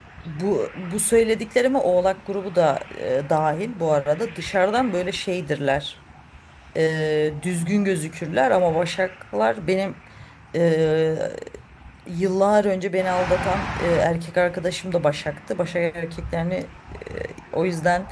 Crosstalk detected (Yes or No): No